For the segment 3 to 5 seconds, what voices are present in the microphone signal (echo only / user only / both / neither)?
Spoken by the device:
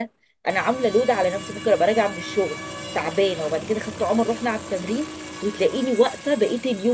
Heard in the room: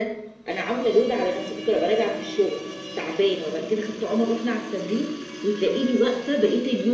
echo only